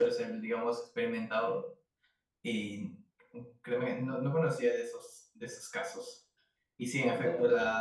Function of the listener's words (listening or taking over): listening